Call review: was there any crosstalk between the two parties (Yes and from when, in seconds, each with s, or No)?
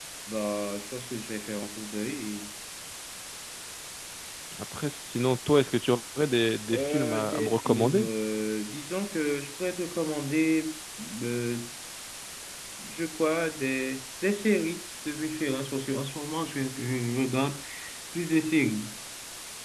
Yes, from 6.7 s